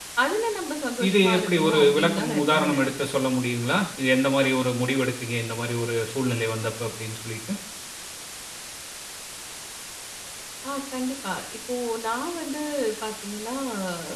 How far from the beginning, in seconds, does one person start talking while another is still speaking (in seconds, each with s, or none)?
1.1 s